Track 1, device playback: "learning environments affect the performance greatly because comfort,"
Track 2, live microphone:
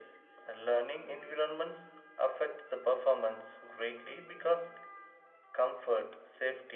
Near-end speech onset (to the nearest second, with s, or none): none